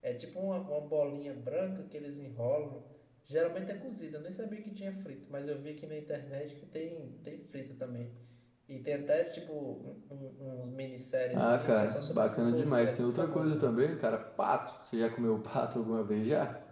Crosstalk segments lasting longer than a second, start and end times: 11.3-13.8

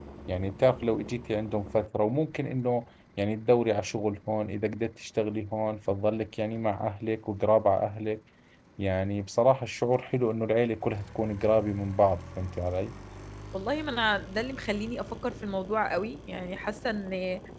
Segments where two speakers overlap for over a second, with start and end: none

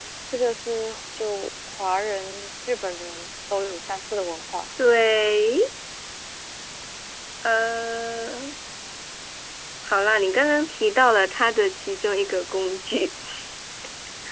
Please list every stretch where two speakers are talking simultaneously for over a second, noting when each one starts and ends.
none

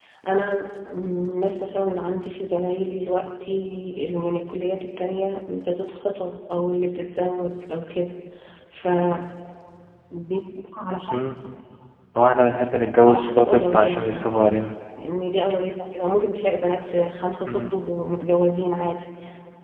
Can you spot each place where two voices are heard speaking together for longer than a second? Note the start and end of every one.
13.0-14.6

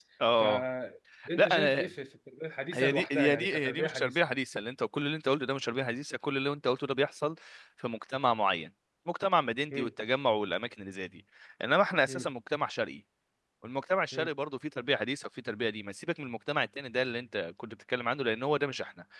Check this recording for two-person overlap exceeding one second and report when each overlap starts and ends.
2.7-4.2

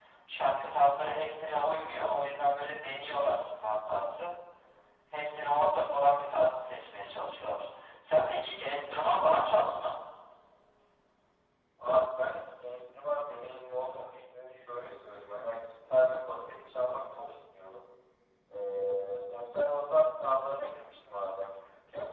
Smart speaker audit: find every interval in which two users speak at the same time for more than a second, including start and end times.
none

